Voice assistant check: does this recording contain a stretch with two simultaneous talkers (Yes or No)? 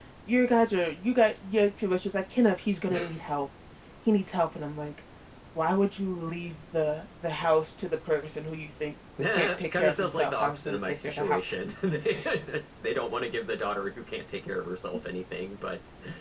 Yes